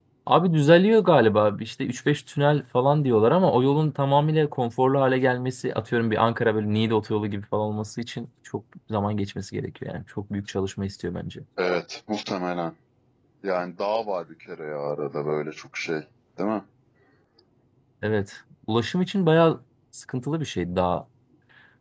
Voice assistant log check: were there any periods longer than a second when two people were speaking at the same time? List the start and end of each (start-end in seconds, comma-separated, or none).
none